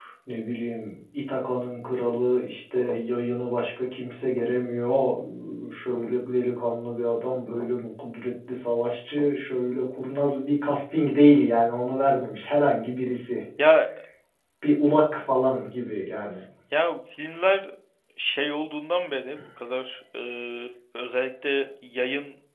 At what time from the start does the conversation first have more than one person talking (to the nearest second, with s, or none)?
none